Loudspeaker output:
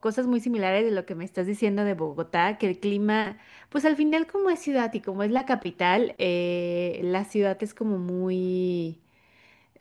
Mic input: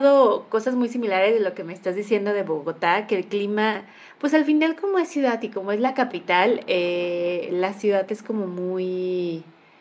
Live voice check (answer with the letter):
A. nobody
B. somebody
A